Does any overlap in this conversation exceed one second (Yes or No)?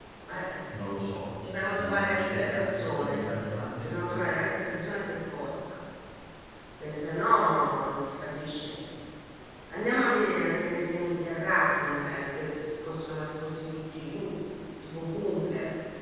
Yes